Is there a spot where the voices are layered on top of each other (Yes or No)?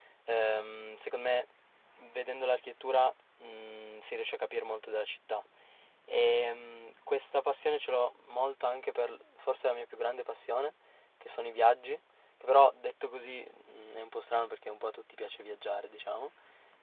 No